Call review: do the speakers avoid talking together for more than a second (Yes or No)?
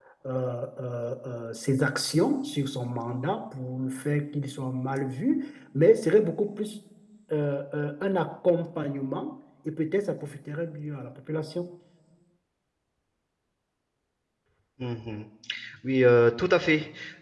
Yes